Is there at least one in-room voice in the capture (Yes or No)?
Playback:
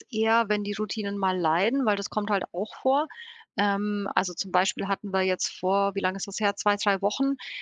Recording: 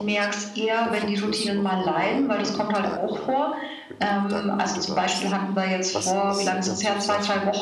Yes